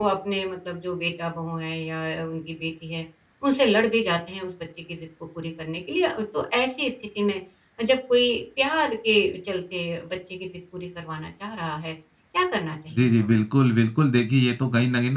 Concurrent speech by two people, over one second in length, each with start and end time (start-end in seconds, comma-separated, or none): none